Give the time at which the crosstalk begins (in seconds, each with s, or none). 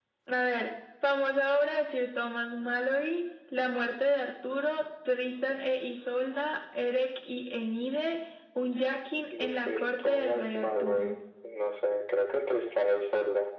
9.3 s